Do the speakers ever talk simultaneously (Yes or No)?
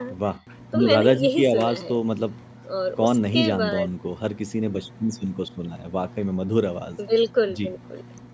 Yes